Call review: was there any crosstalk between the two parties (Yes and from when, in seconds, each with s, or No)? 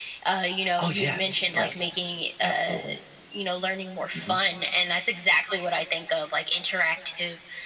Yes, from 0.8 s